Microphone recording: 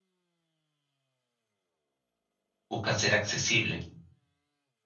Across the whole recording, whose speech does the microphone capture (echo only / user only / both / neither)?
user only